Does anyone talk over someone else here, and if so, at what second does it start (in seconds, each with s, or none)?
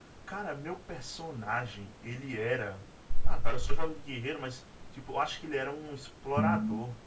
none